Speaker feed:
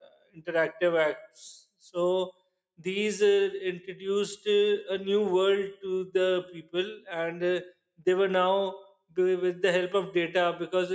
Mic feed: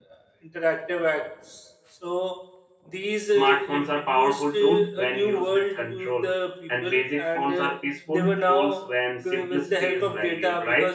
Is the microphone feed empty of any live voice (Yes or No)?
No